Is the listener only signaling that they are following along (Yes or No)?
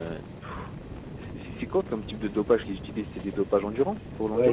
No